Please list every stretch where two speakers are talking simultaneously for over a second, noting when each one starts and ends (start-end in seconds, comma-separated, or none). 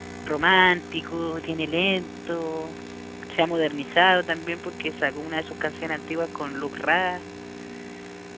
none